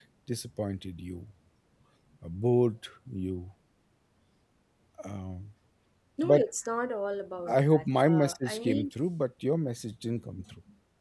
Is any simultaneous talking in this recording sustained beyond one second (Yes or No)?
Yes